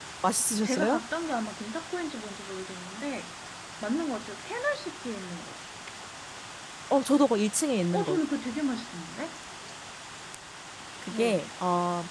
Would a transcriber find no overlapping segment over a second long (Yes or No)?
Yes